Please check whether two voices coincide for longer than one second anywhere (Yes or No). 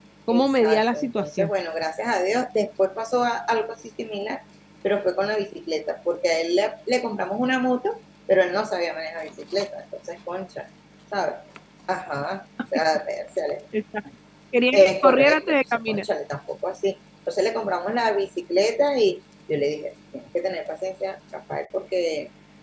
Yes